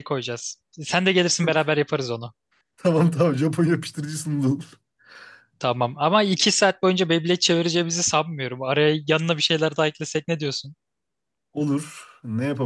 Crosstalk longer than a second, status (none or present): none